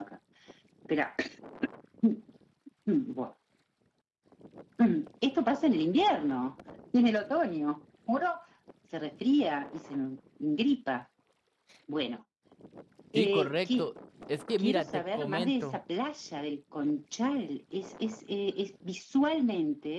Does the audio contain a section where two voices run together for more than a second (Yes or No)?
Yes